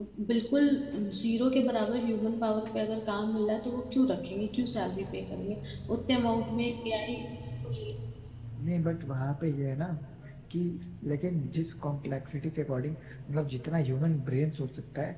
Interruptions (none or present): none